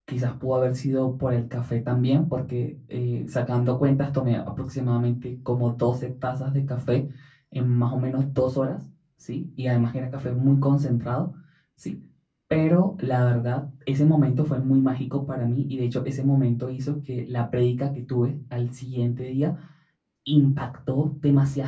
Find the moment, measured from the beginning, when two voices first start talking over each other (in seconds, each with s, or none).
none